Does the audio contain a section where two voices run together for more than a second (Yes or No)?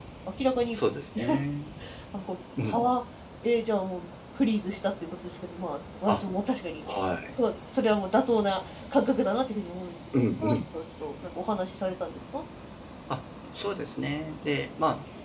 No